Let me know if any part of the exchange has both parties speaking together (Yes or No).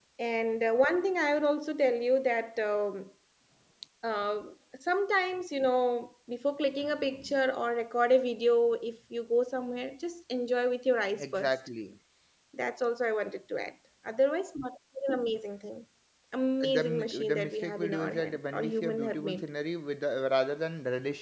Yes